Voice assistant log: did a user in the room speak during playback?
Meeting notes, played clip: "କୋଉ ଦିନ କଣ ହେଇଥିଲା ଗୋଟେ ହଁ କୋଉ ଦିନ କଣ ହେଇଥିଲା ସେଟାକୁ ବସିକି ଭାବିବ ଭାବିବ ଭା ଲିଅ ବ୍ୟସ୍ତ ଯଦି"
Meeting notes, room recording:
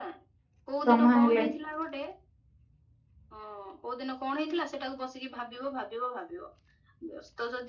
Yes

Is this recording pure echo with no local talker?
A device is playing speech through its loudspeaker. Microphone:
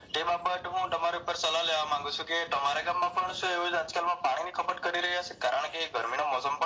Yes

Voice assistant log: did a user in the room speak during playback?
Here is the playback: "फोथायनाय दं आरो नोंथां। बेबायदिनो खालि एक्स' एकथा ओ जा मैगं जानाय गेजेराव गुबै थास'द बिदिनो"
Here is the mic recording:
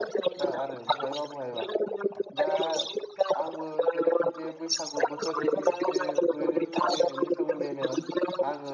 Yes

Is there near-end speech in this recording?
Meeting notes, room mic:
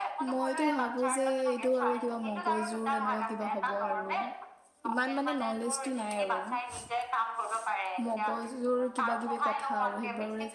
Yes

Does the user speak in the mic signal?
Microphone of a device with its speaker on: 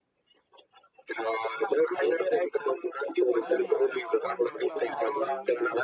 Yes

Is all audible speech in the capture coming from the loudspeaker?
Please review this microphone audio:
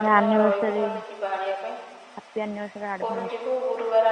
No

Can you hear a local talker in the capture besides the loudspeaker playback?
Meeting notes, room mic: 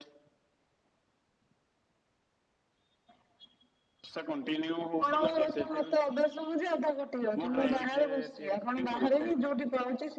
Yes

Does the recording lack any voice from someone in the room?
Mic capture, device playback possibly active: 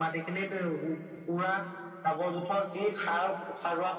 Yes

